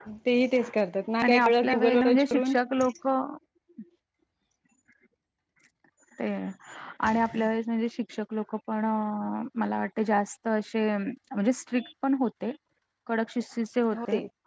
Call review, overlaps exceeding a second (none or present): present